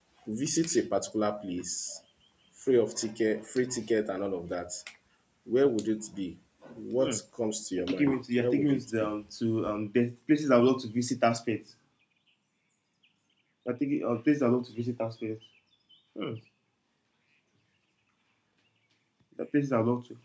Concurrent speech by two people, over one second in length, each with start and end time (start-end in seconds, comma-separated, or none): 7.8-9.1